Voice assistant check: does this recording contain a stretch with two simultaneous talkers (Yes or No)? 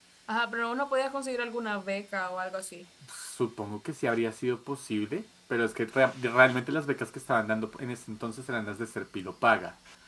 No